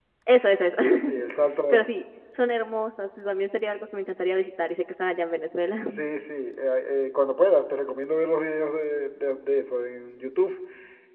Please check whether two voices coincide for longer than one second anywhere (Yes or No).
No